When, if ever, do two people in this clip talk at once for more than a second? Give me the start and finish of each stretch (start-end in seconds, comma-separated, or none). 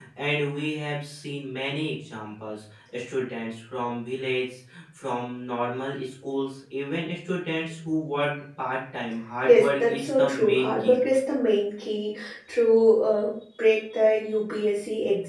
9.5-11.0